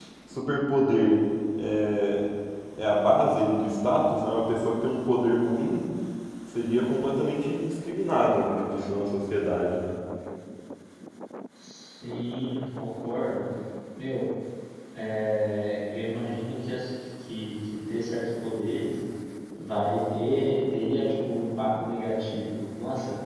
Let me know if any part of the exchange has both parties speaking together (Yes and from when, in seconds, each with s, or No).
No